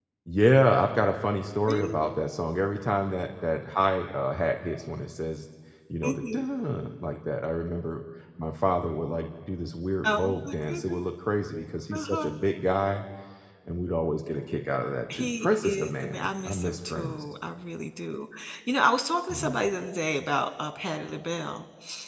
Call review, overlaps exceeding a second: present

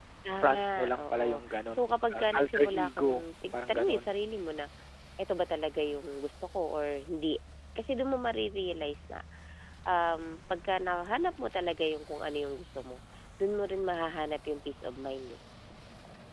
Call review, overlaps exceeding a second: present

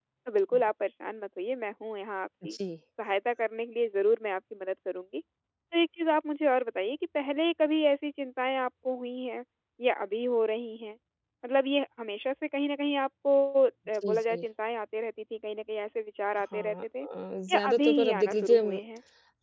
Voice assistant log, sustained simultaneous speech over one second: present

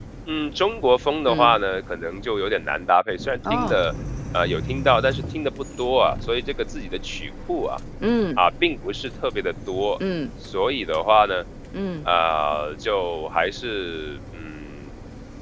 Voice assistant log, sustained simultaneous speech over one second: none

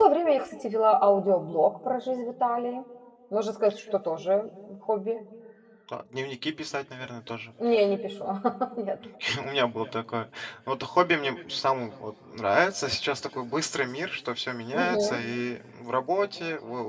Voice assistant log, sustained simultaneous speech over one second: none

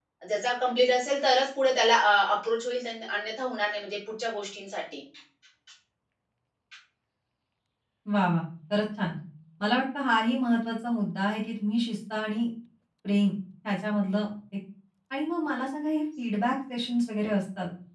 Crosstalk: none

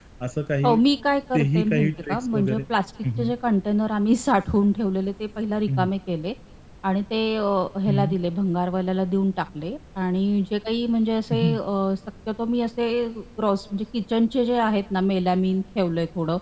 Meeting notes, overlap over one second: present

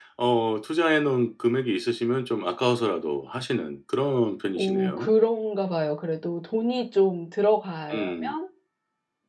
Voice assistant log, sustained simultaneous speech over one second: none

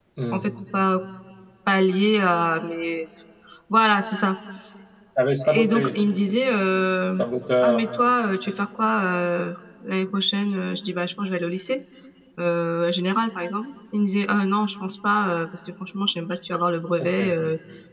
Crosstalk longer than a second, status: none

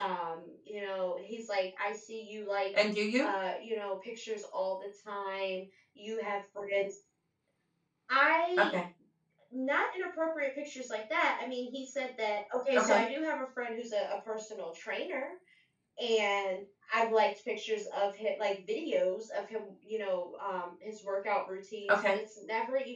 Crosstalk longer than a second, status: none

